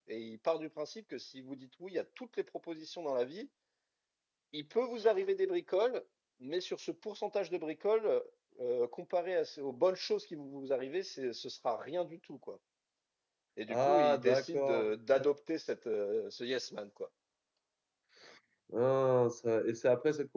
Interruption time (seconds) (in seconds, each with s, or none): 13.7 s